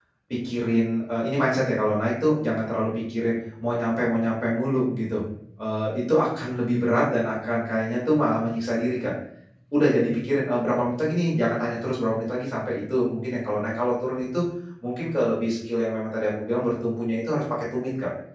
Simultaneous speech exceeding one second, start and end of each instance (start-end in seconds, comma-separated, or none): none